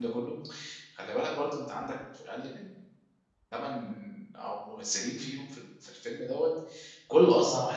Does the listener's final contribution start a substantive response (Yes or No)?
No